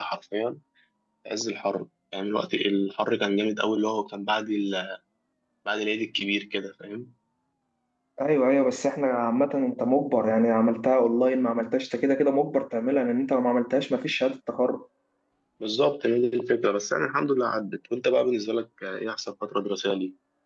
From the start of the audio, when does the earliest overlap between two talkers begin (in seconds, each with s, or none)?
none